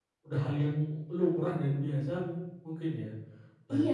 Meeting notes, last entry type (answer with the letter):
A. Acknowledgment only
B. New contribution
B